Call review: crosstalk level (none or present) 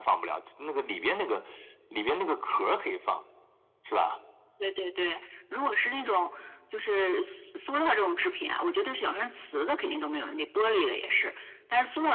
none